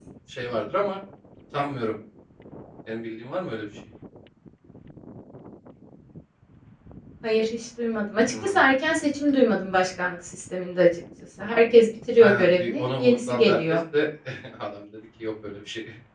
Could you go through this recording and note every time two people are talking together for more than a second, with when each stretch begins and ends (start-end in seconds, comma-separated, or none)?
12.2-13.8